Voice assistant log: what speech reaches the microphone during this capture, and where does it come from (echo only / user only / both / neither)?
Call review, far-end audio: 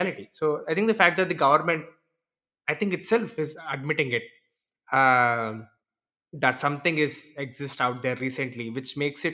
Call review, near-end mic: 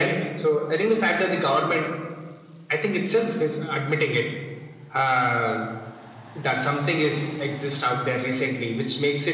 echo only